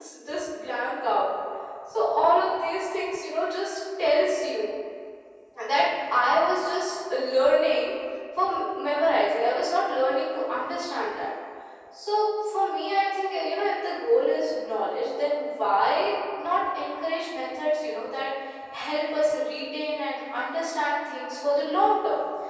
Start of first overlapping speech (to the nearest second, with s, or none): none